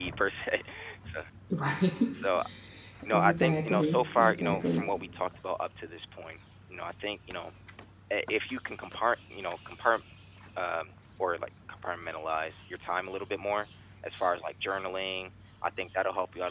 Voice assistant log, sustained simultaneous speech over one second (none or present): present